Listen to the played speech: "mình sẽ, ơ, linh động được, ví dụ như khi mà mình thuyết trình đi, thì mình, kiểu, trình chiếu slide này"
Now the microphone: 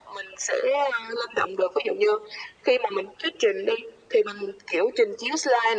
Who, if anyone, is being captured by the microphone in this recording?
echo only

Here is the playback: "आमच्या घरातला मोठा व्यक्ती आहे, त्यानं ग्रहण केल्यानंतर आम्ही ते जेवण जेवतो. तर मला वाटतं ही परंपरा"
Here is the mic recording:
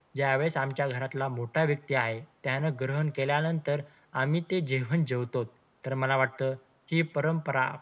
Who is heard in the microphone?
echo only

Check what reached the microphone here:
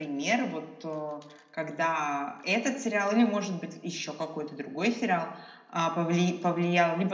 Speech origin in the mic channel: echo only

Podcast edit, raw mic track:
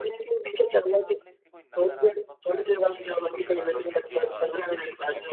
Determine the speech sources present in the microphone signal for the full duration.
both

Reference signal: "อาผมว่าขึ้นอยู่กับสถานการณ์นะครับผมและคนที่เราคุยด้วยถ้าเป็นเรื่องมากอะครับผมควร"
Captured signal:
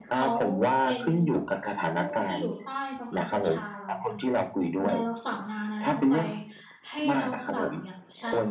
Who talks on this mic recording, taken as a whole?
both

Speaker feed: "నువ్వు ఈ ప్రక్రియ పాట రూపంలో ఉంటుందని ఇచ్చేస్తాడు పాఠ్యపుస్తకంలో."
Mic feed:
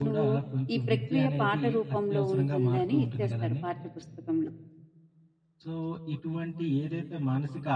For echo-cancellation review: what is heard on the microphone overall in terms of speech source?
both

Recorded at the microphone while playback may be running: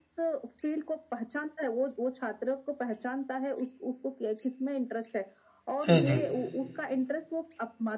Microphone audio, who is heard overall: both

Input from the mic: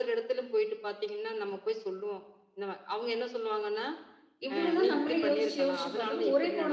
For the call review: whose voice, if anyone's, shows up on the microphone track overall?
both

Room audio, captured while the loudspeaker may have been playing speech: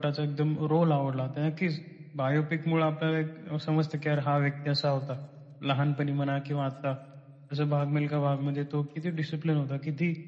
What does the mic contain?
echo only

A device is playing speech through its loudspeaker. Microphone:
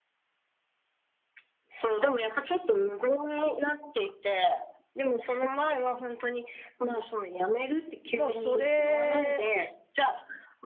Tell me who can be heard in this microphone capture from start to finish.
both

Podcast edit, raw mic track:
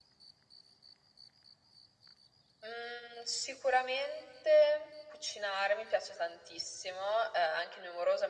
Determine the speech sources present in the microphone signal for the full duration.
echo only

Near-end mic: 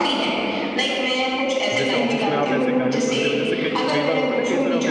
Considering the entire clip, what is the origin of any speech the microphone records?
both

